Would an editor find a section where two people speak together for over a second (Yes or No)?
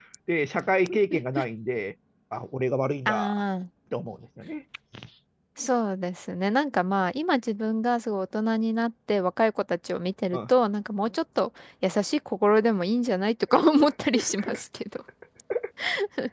No